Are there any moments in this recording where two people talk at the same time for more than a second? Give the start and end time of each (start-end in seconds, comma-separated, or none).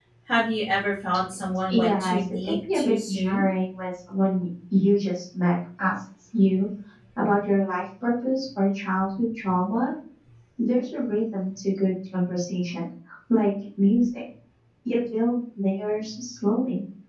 1.7-3.4